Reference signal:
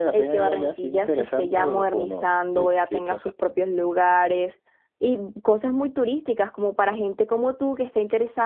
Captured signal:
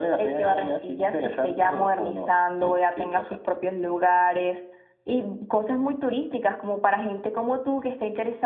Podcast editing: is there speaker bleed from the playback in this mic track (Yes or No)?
Yes